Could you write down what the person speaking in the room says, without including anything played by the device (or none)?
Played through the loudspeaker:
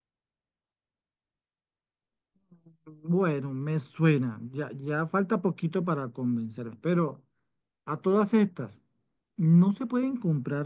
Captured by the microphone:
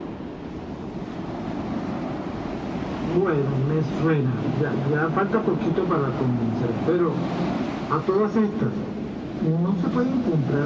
none